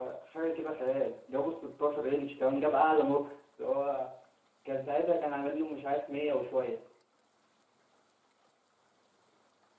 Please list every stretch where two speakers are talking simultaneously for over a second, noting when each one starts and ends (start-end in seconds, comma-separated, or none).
none